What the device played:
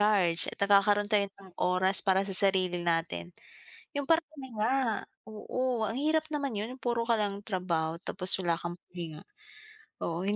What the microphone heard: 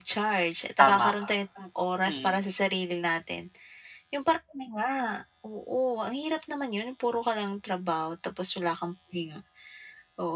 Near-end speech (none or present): present